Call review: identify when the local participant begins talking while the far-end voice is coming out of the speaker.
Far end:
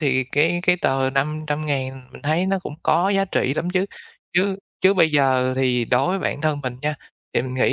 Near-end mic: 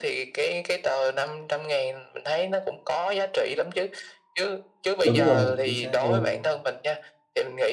5.0 s

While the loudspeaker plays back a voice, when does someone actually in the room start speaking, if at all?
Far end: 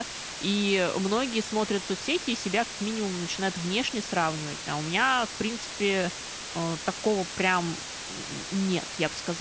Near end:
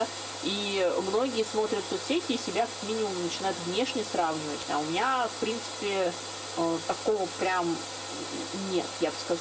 none

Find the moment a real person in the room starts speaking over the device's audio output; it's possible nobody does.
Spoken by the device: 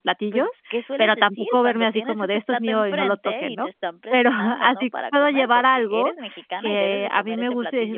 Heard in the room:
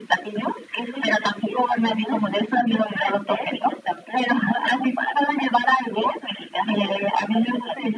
none

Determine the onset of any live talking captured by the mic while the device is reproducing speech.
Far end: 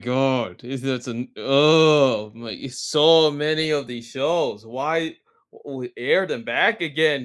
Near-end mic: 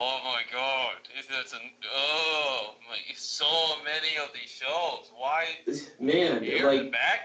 5.7 s

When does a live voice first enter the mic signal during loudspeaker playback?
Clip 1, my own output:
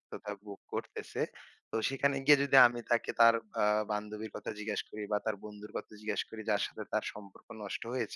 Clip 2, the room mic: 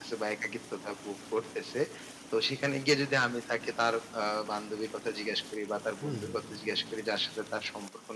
6.0 s

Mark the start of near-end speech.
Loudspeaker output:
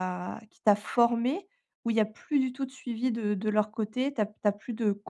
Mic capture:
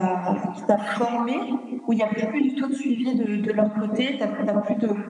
none

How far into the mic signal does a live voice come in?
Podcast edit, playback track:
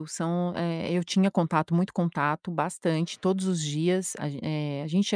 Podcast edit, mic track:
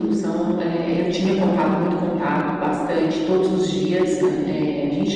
none

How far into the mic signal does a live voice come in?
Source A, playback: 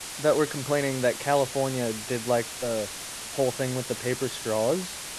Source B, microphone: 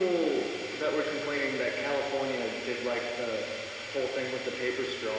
none

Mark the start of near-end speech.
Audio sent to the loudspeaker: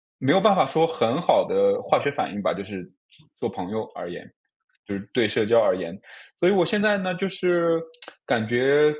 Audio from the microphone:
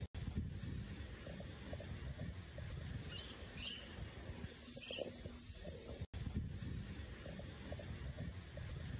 none

